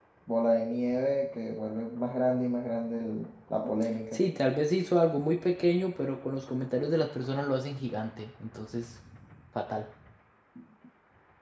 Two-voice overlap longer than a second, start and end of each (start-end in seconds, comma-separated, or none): none